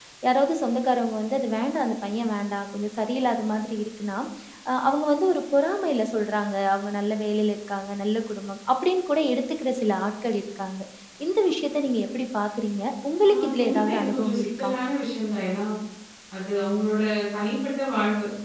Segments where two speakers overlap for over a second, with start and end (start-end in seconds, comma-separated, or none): 13.3-14.7